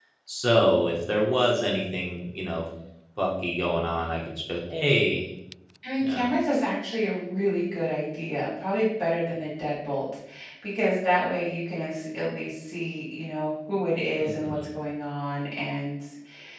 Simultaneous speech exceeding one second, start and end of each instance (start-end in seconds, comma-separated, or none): none